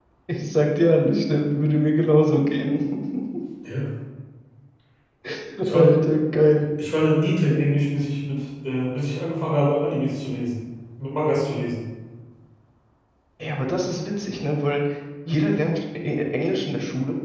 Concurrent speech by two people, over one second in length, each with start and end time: none

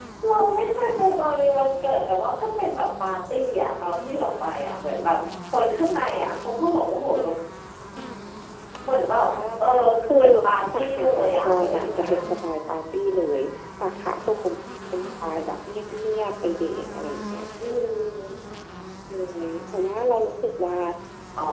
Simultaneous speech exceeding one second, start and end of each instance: 10.8-12.0

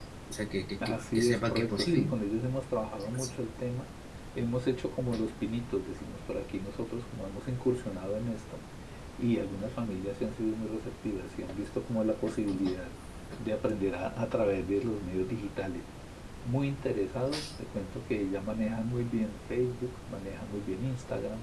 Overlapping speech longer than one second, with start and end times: 0.8-2.1

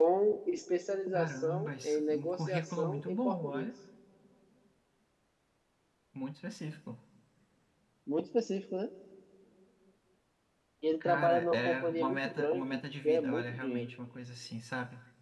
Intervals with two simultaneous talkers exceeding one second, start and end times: 1.1-3.7, 11.0-13.9

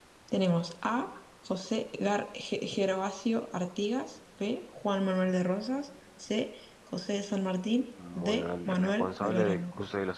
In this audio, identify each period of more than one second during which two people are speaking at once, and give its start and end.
8.2-9.7

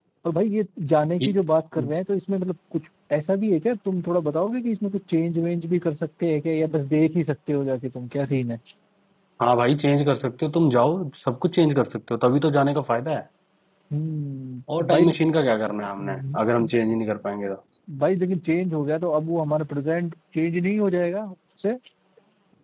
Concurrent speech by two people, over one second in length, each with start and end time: none

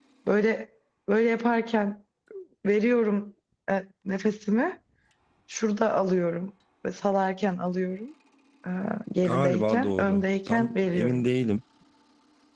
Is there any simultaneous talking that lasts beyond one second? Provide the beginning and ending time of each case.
9.2-11.3

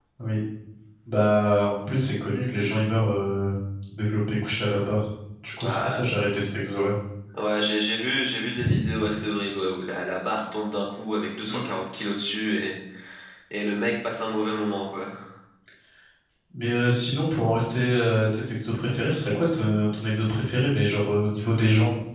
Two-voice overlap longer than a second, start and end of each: none

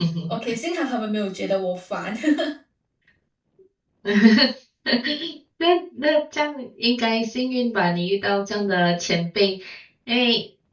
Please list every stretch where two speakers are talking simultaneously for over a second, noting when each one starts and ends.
none

